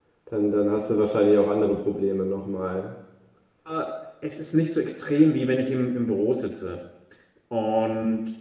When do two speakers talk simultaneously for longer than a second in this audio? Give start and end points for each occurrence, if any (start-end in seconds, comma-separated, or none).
none